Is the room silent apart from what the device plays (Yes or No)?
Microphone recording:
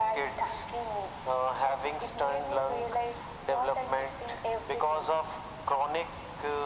Yes